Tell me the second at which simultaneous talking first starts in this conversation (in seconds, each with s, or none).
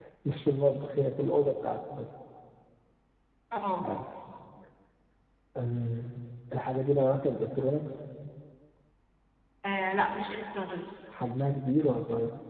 none